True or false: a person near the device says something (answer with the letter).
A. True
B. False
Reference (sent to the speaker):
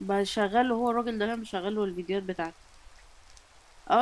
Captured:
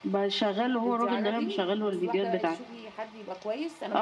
A